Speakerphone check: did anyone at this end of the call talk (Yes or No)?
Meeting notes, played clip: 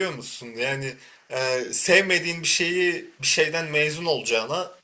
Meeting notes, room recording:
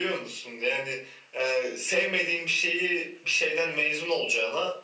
No